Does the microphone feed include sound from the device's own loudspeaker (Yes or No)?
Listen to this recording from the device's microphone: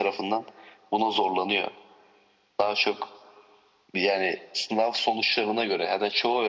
Yes